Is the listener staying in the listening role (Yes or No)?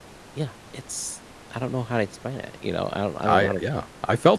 No